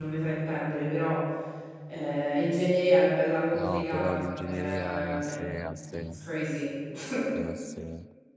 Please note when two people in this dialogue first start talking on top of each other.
3.5 s

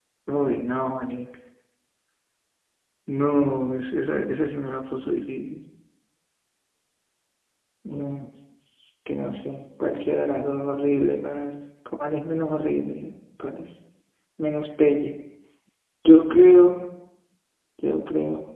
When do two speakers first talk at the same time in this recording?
none

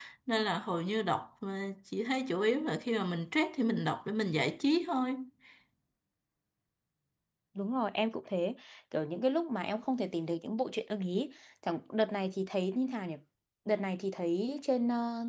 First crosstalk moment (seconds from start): none

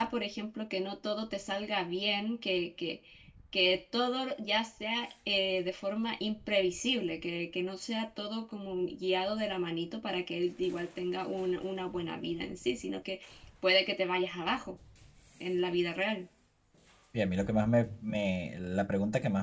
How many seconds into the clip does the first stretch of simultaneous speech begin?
none

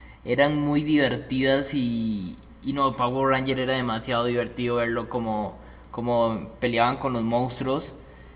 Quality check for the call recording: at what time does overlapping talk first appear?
none

